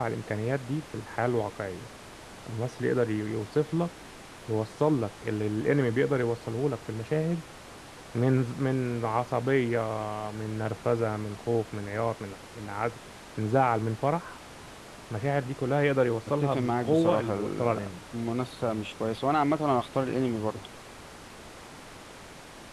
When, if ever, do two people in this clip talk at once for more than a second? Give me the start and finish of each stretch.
16.4-17.9

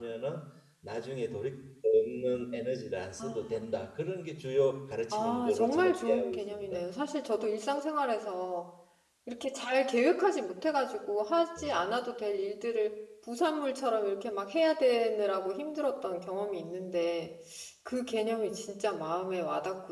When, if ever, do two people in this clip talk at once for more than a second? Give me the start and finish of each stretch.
5.1-6.8

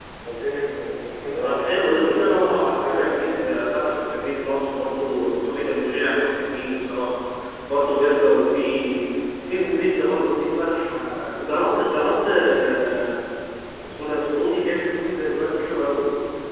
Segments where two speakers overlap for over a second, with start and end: 1.4-3.7

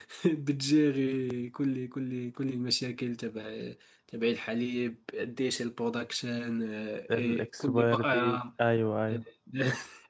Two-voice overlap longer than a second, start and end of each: 7.1-8.4

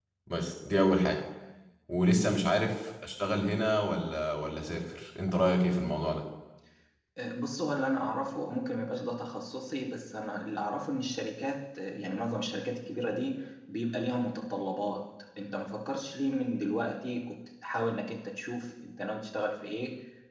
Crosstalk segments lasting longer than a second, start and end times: none

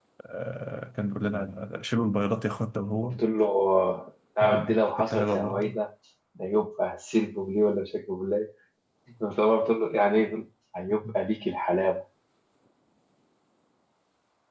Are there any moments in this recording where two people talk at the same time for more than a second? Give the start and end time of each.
4.4-5.7

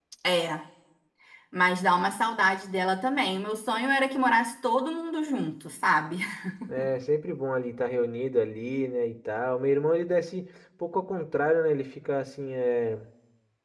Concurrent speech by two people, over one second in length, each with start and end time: none

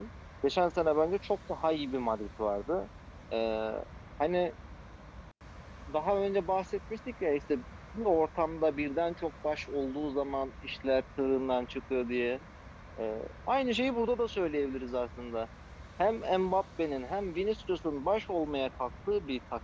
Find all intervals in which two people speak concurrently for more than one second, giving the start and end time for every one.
none

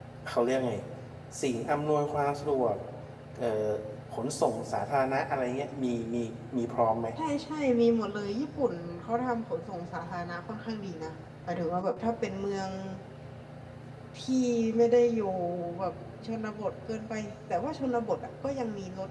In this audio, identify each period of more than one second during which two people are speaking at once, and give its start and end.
none

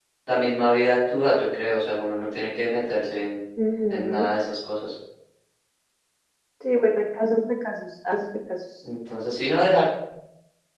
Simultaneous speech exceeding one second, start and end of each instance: none

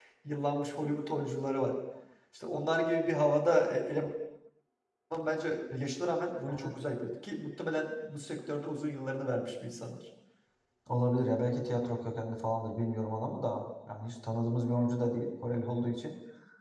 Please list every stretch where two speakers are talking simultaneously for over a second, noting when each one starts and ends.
none

